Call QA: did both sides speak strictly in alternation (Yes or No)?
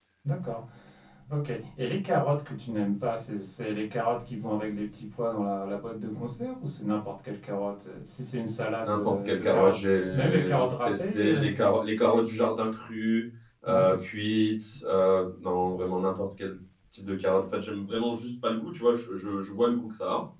No